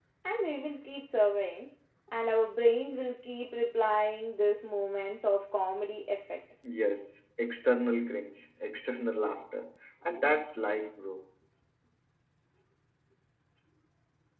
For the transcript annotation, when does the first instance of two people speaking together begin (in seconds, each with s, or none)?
none